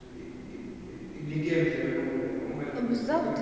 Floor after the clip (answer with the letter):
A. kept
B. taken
B